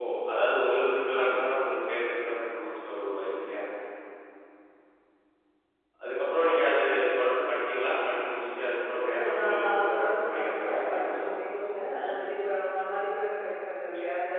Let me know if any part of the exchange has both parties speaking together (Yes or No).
Yes